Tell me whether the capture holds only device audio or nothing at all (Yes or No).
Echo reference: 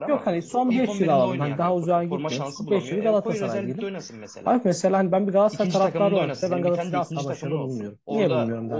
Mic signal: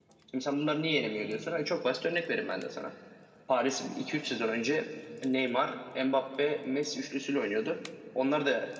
No